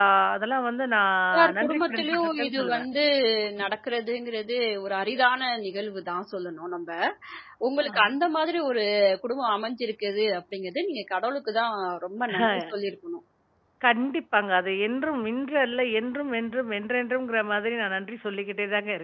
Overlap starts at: 1.3 s

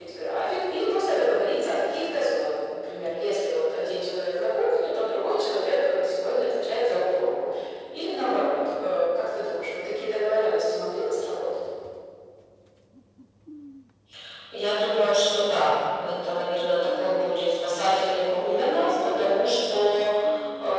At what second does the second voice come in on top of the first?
none

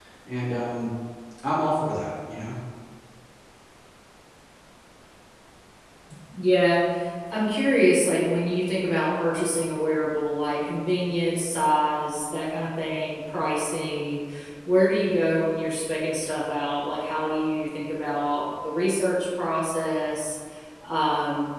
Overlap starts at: none

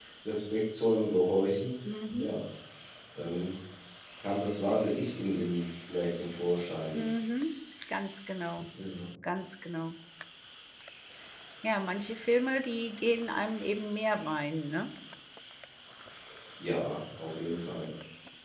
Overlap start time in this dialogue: none

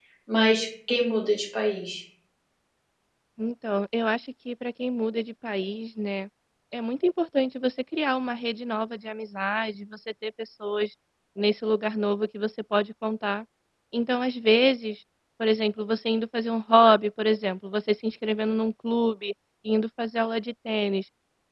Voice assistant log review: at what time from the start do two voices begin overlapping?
none

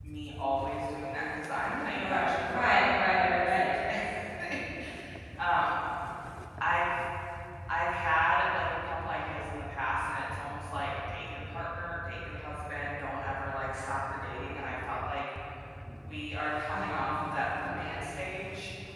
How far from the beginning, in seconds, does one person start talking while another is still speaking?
2.0 s

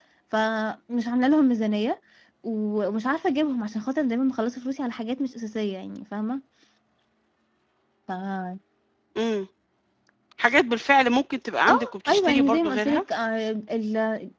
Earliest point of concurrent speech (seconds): 11.7 s

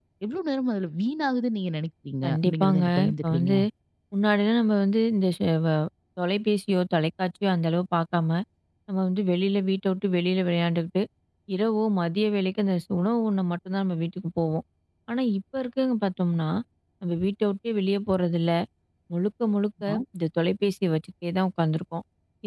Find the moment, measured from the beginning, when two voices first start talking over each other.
2.2 s

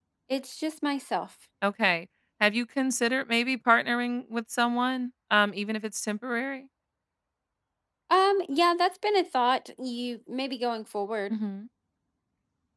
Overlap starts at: none

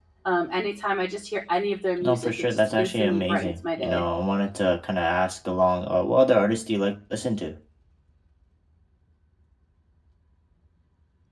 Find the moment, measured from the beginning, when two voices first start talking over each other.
2.0 s

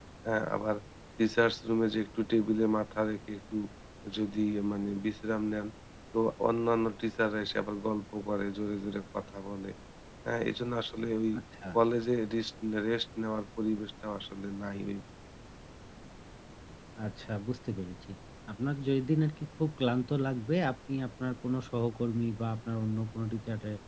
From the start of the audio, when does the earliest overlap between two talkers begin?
none

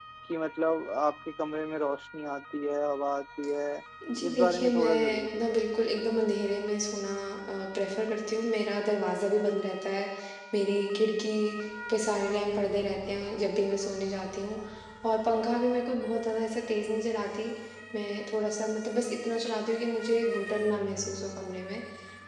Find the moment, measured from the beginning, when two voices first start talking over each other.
4.3 s

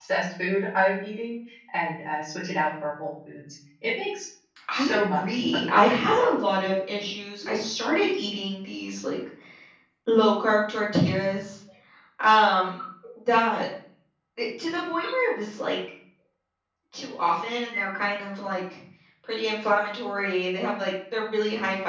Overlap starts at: 4.7 s

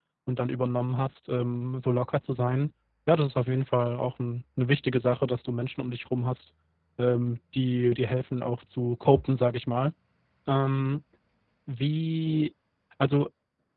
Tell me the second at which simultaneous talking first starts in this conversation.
none

